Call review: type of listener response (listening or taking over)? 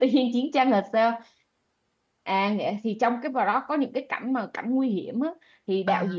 listening